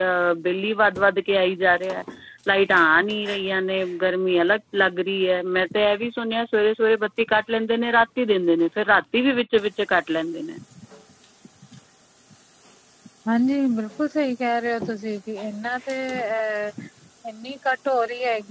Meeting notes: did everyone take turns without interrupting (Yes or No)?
Yes